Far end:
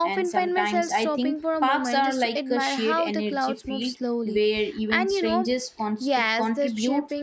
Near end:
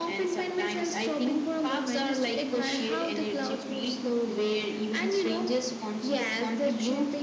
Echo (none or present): present